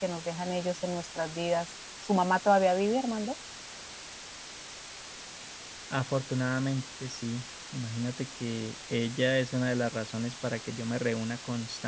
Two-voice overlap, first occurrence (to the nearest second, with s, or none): none